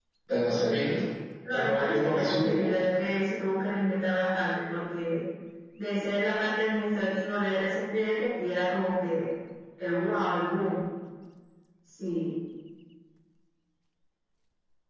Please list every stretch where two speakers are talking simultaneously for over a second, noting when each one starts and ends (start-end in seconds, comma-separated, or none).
1.5-2.7